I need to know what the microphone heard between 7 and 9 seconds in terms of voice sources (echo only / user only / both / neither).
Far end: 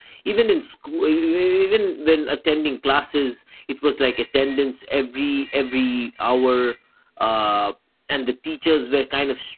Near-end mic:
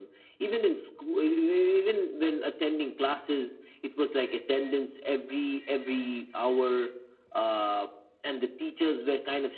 echo only